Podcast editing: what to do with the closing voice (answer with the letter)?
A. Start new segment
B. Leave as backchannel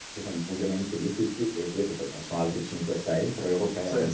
B